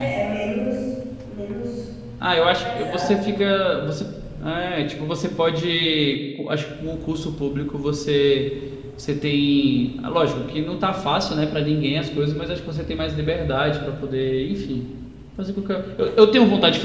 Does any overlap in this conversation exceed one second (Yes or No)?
No